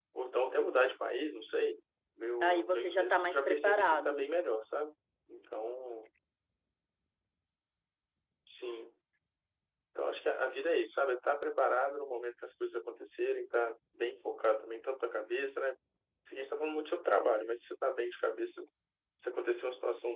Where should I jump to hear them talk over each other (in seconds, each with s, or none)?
2.4 s